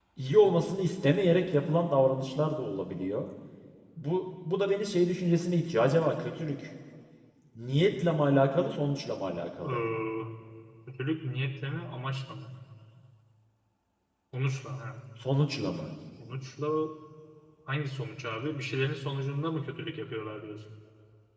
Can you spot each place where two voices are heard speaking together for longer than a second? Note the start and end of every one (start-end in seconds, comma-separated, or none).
none